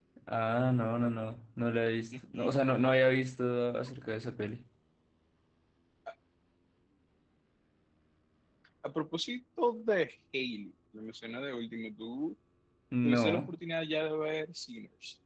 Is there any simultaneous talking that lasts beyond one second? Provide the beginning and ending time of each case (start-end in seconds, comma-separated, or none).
none